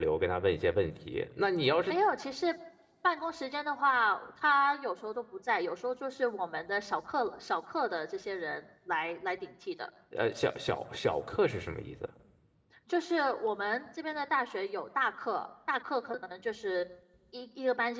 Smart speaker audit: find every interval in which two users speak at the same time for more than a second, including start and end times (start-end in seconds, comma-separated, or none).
none